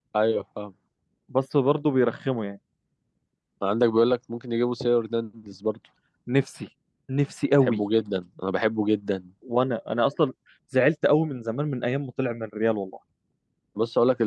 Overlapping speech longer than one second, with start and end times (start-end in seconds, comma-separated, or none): none